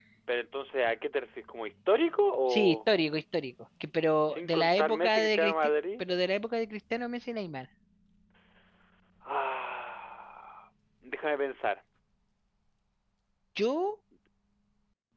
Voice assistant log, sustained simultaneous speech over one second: present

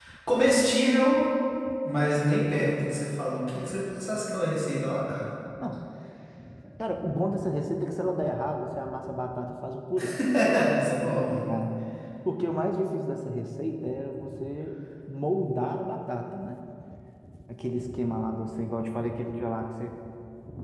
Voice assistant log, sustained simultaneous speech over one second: none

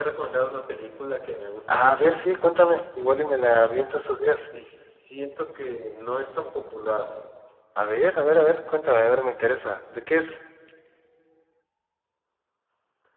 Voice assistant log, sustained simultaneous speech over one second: none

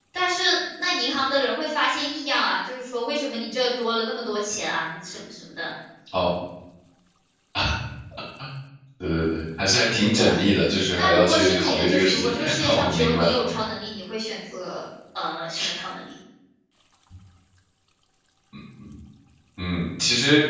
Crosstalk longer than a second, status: present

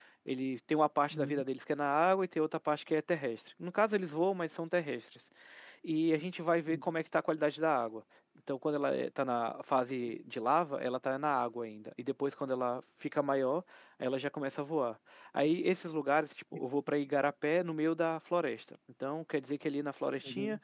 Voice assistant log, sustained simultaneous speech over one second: none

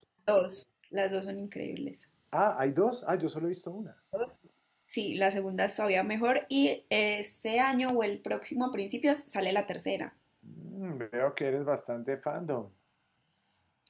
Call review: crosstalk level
none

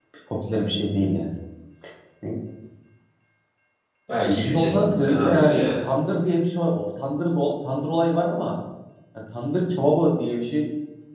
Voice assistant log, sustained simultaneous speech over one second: present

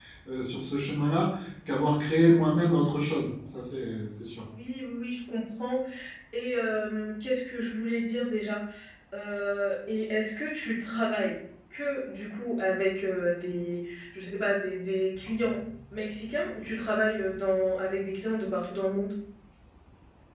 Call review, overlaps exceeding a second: none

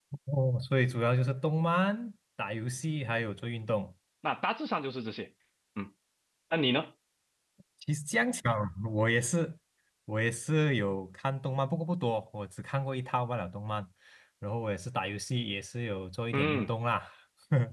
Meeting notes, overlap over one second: none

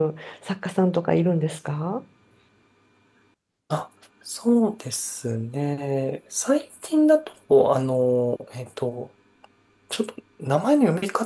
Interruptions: none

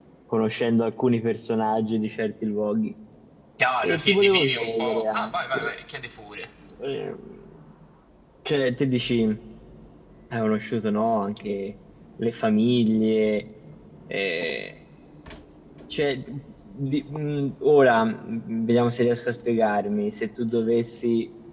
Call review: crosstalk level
present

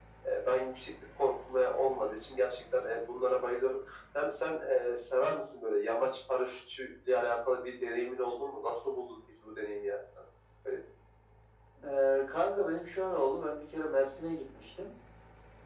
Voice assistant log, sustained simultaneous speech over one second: none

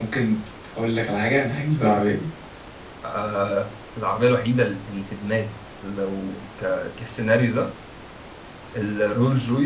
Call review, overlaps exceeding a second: none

